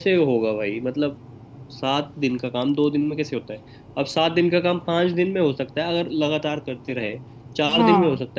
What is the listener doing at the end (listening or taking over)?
listening